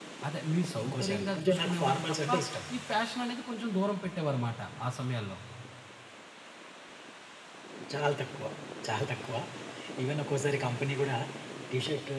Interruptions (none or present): present